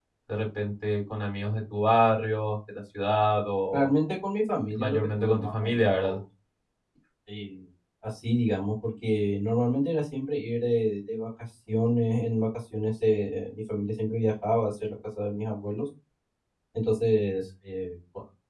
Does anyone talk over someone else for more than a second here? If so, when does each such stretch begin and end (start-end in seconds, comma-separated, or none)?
4.8-6.2